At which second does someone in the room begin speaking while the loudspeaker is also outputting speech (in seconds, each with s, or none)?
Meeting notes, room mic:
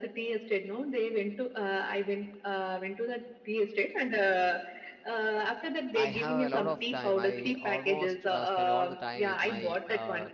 5.9 s